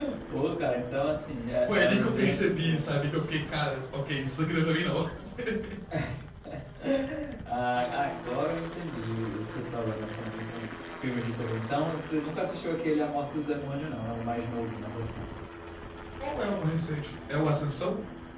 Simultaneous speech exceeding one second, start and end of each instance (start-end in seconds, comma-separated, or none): 1.7-2.9